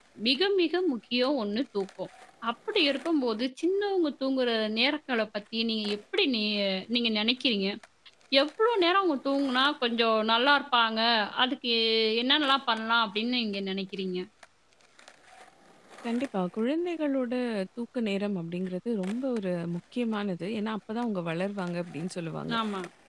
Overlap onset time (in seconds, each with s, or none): none